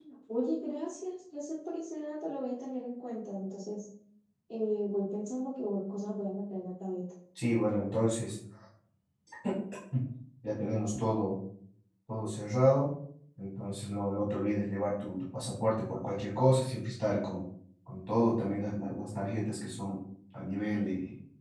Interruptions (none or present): none